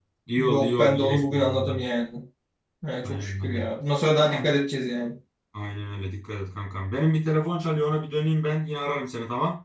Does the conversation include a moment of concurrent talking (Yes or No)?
Yes